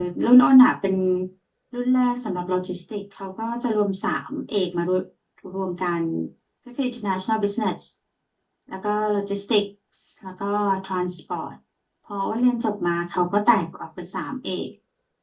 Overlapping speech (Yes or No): No